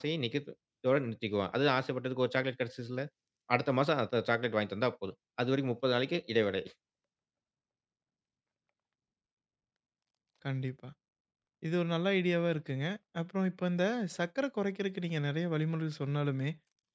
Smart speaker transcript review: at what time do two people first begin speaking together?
none

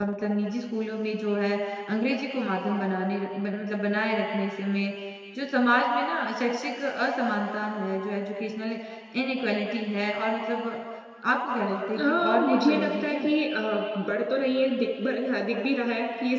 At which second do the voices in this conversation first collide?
12.0 s

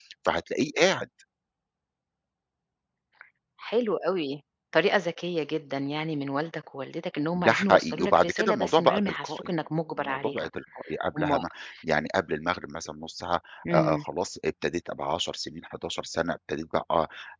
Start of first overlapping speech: 7.3 s

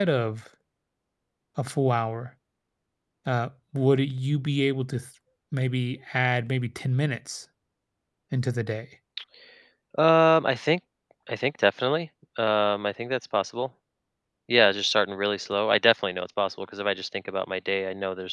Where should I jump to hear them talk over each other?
none

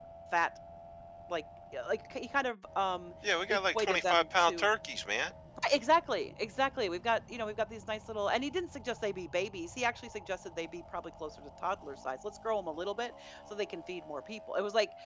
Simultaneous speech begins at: 3.5 s

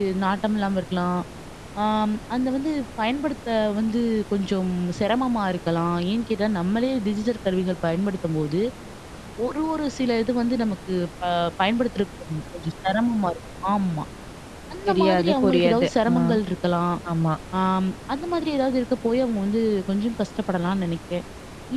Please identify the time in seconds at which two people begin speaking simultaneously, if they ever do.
14.9 s

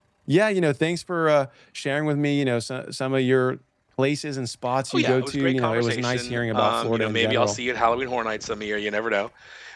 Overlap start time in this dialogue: 4.9 s

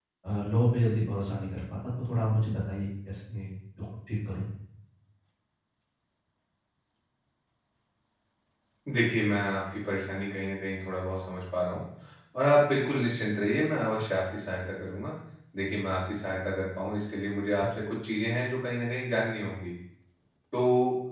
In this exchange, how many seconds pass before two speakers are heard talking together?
none

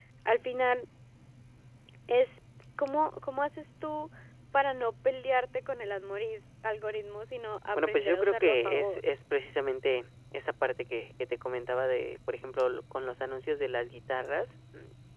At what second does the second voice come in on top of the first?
7.7 s

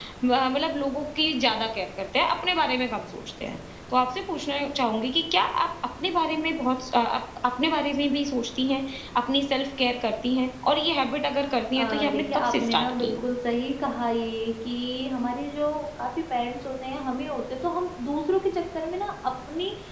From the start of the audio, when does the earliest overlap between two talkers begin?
11.8 s

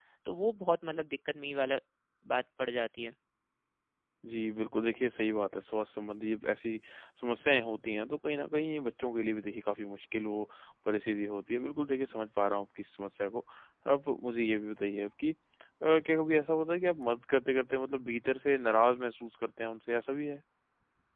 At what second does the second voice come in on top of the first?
none

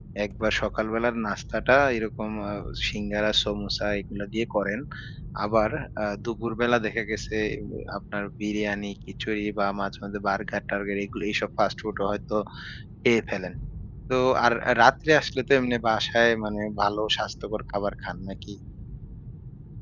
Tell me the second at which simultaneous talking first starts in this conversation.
none

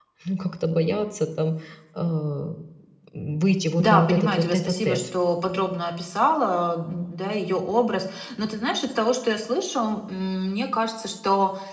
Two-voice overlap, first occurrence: 3.8 s

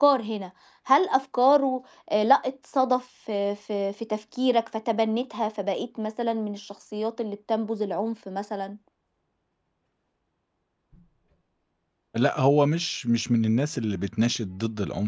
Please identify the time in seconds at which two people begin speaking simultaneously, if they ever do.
none

